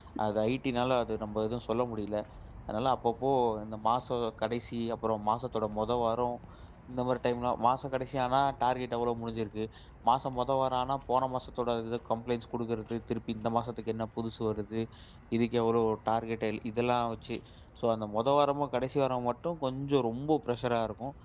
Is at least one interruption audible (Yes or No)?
No